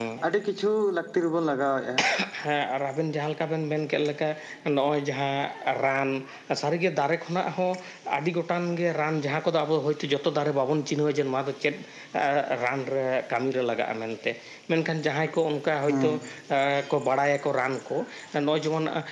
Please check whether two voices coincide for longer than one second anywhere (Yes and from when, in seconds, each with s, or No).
No